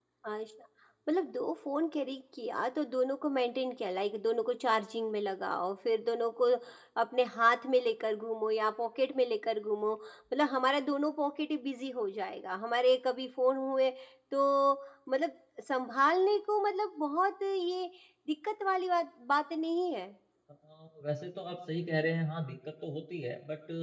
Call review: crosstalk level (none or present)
none